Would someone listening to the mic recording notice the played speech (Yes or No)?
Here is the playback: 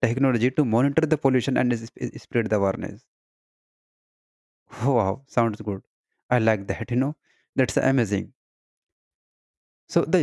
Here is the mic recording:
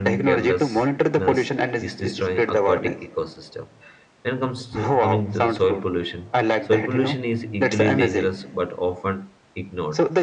Yes